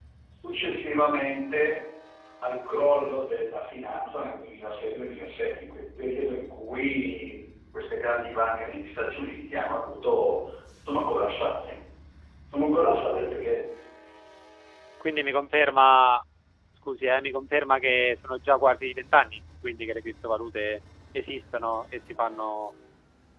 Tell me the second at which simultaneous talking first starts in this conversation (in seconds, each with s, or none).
none